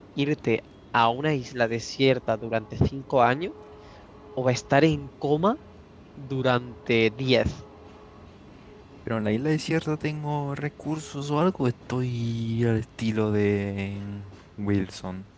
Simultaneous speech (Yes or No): No